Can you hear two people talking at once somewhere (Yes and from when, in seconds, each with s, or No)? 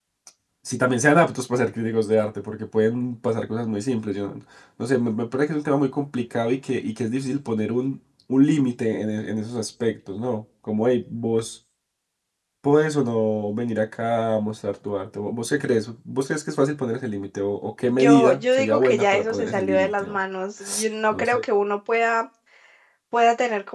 Yes, from 17.8 s